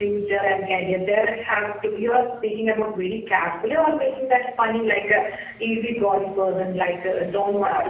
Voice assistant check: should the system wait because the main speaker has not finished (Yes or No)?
Yes